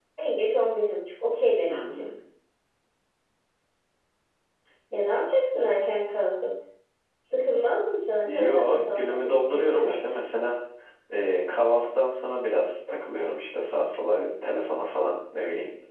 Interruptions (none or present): present